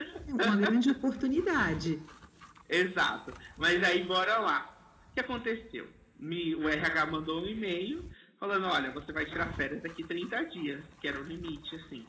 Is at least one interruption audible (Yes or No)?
No